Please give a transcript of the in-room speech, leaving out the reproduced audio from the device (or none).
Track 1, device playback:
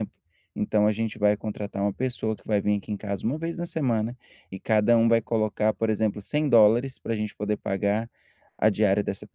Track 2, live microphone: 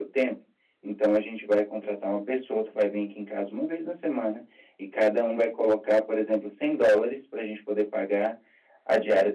none